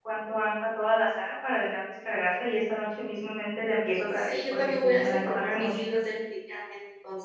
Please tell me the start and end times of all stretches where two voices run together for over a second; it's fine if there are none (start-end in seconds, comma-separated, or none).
4.1-5.8